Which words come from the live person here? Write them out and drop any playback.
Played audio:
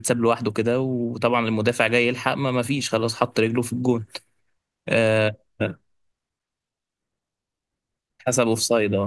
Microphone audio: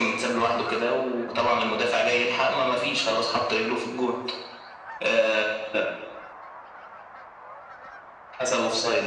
none

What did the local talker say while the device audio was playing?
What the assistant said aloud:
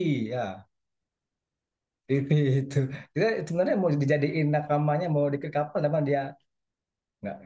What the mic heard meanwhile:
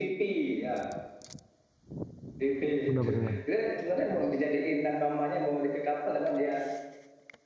Benar-benar.

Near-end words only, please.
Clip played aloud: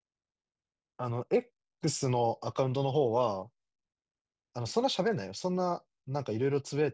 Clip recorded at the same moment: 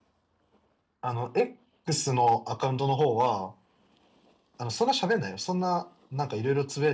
none

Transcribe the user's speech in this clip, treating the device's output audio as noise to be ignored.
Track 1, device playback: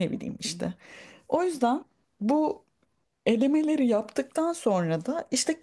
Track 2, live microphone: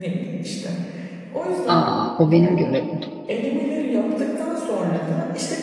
Aa, o benim görevim.

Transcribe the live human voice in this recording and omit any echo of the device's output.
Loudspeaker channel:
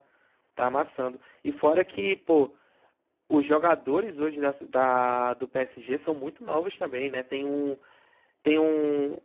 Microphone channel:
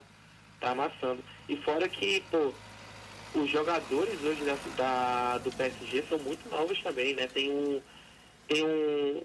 none

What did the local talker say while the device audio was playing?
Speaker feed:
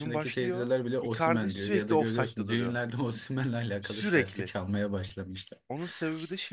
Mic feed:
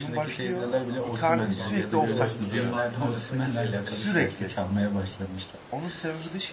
Aa, çok mantıklı. Bir de o iki defansın arasına giriyordu. Hani

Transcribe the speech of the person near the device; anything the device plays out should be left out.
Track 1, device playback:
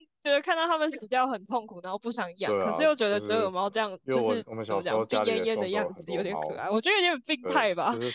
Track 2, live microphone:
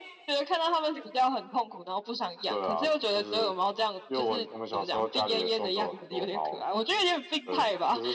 none

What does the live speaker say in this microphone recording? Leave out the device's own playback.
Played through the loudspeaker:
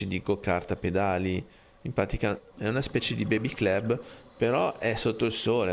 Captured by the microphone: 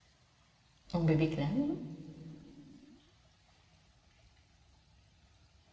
Un baby clam?

